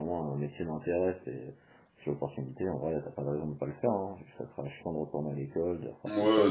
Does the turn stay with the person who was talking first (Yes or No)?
No